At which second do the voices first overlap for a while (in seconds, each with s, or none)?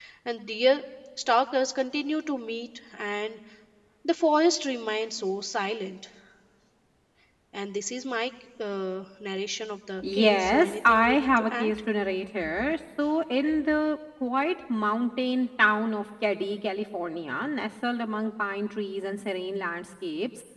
10.0 s